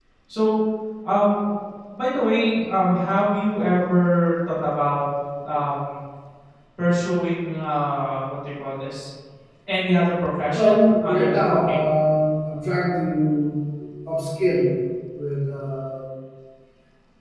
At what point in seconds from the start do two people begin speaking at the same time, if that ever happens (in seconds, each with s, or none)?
10.5 s